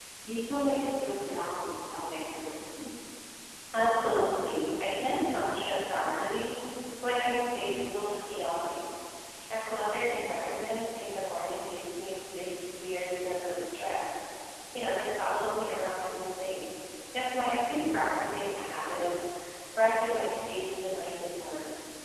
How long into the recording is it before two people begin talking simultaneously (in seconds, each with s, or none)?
none